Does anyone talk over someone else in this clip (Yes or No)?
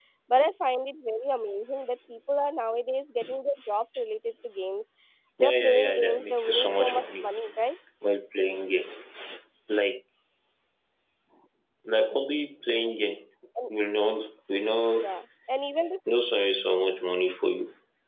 Yes